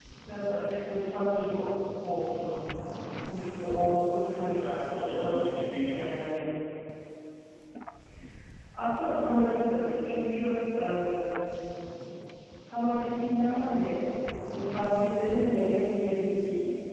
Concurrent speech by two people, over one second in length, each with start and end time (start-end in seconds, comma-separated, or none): 4.3-5.5